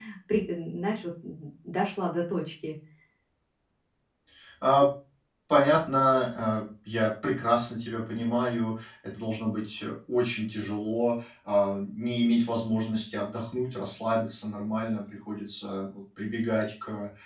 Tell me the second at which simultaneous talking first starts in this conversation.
none

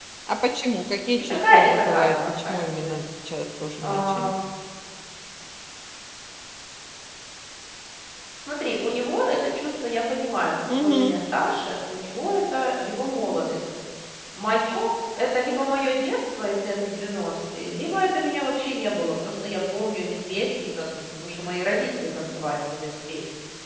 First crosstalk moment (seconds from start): 1.3 s

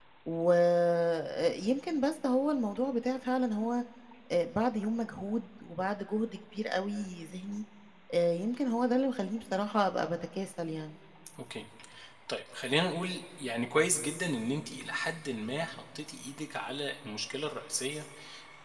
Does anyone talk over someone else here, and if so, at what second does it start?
none

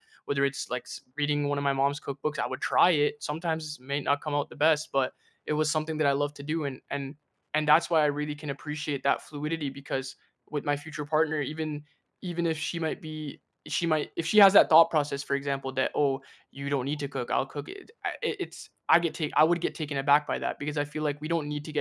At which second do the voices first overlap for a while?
none

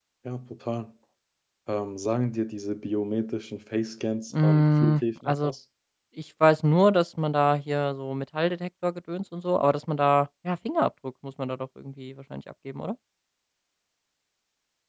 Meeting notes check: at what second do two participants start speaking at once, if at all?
4.3 s

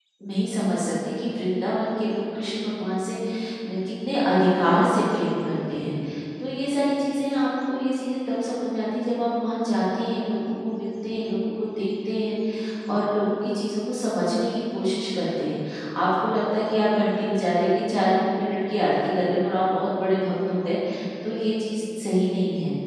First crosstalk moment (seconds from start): none

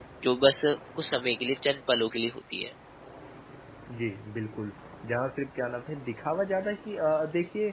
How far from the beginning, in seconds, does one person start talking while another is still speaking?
none

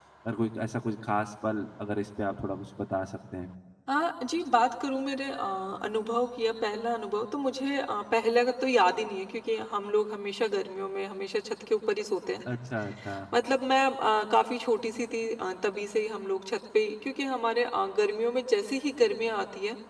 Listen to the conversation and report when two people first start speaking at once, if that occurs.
none

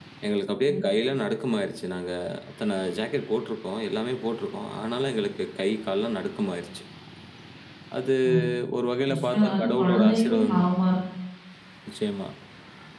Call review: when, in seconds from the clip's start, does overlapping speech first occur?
9.1 s

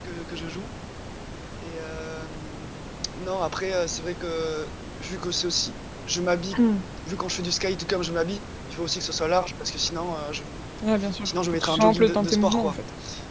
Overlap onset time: 11.2 s

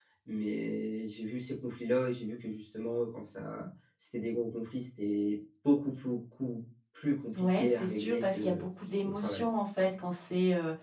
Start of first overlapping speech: 7.3 s

